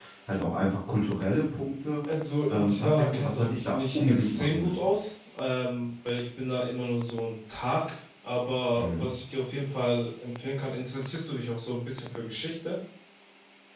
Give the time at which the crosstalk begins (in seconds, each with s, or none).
2.5 s